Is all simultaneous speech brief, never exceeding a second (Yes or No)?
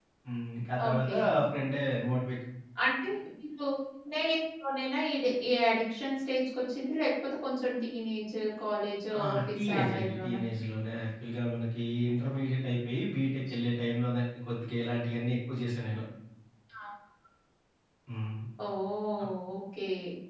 No